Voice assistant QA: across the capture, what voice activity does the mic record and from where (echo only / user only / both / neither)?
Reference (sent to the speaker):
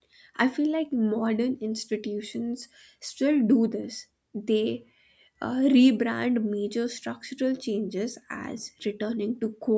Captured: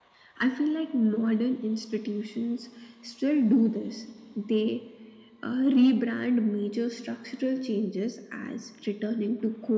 echo only